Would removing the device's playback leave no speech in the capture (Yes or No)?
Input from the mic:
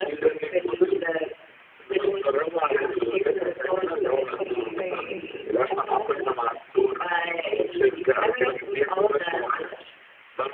No